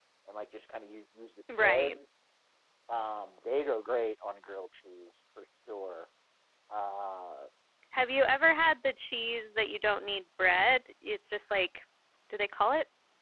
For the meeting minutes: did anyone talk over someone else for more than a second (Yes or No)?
No